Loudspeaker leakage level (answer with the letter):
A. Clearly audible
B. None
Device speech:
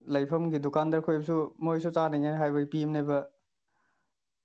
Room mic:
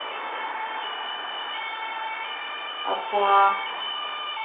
B